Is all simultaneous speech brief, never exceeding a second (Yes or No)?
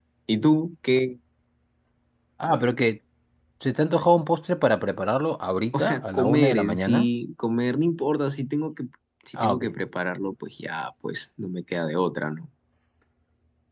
No